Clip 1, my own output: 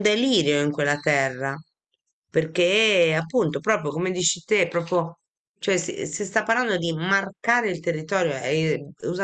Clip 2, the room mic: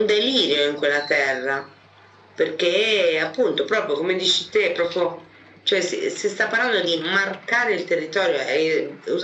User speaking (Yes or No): No